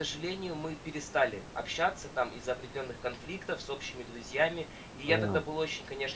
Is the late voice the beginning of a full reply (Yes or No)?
No